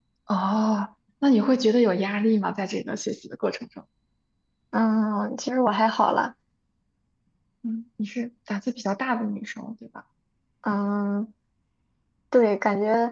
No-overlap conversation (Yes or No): Yes